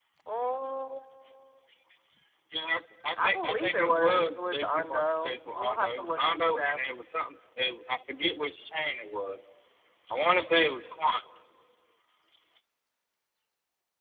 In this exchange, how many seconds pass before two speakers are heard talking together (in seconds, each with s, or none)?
3.2 s